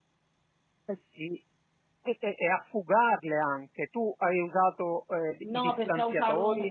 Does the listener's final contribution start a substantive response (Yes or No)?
Yes